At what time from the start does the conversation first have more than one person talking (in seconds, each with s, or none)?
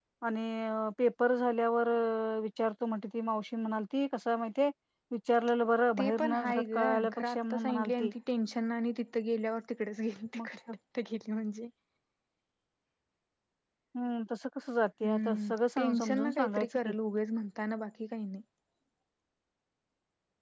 6.0 s